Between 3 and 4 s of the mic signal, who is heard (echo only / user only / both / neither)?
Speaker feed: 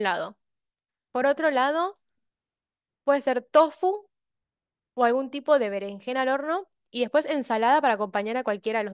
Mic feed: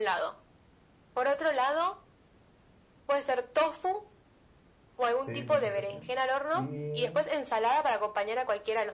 echo only